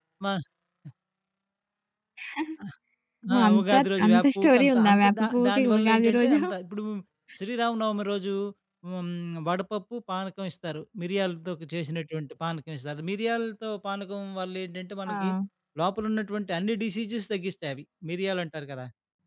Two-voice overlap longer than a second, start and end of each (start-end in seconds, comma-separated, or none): 3.5-6.4